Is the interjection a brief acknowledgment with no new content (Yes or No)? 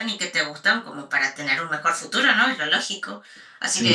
Yes